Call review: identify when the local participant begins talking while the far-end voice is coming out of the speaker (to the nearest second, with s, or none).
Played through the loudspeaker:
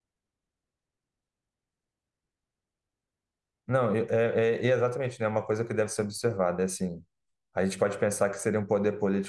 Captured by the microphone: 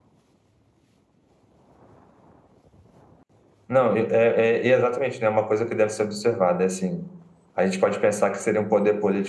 none